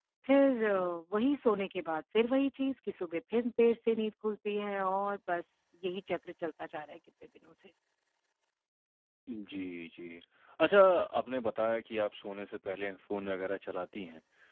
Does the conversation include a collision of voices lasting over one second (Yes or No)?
No